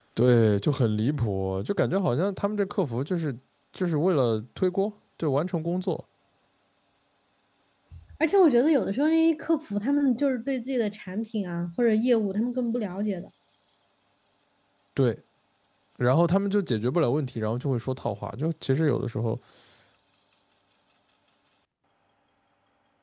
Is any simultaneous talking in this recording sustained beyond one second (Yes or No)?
No